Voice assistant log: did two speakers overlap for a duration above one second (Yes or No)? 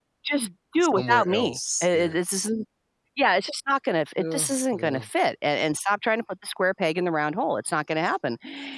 Yes